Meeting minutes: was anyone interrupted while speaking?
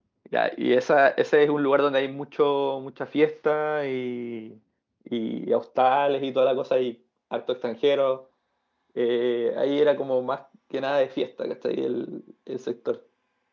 No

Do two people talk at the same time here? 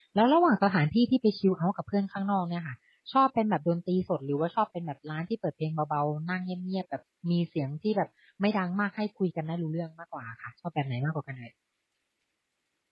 No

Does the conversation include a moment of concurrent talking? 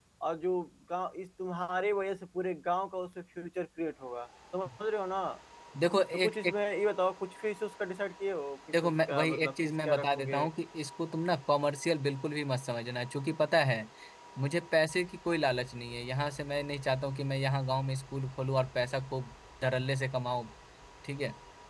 Yes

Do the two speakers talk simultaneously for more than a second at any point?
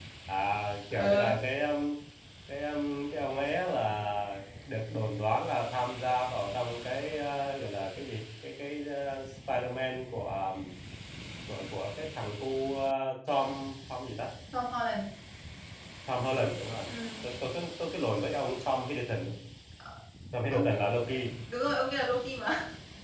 No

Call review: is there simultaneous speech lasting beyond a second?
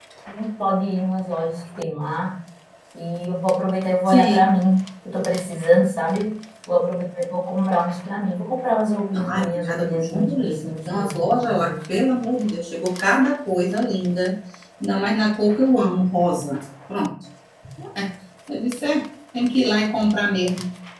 Yes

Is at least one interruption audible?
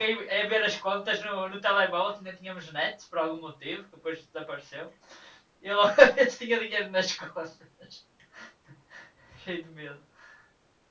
No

